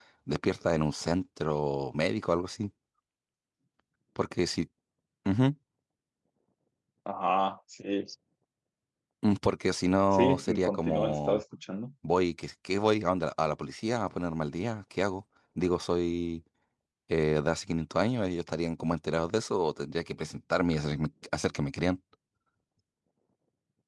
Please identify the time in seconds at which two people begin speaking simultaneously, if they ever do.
10.1 s

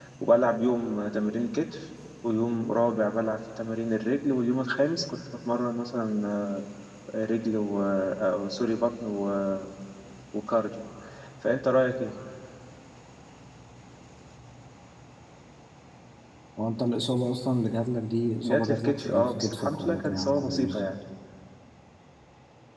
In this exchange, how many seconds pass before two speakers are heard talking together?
18.4 s

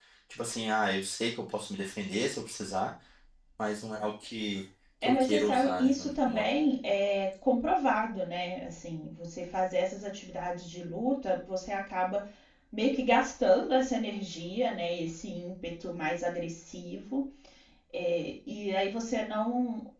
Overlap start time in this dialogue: 5.0 s

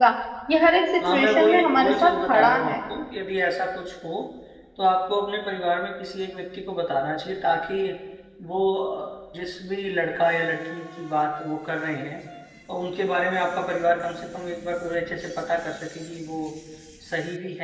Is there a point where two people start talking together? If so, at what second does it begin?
1.1 s

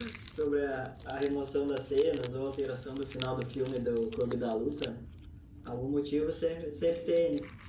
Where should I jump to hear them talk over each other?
none

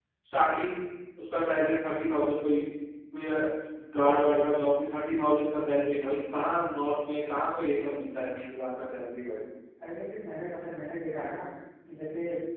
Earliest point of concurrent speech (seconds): none

